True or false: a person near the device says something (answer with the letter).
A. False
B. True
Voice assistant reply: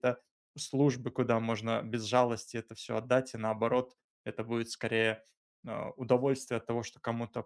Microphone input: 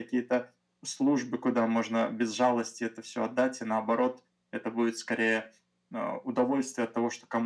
A